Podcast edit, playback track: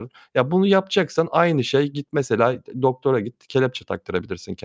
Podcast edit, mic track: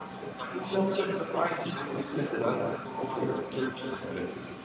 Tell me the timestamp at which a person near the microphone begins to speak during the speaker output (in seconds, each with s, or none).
none